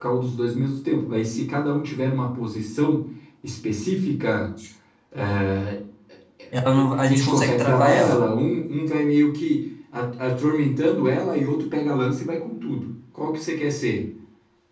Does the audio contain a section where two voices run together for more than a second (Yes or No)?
Yes